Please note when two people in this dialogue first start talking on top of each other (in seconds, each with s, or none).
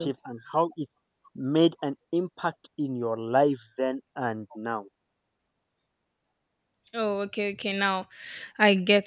none